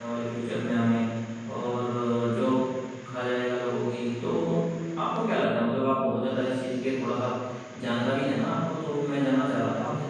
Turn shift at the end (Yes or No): No